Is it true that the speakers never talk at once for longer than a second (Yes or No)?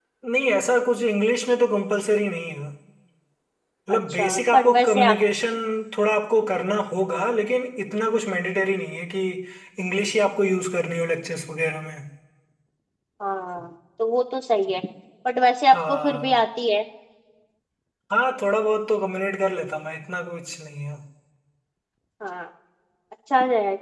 No